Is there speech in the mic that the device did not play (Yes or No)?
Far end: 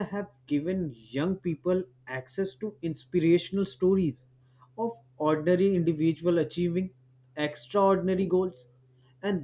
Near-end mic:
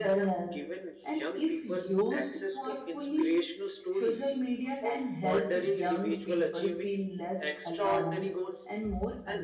Yes